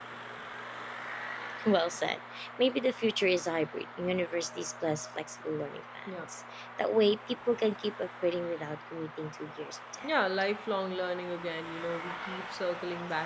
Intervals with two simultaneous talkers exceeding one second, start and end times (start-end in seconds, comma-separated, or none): none